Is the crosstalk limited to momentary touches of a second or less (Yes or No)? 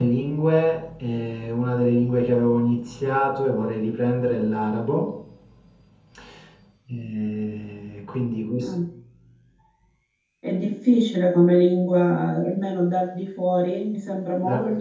Yes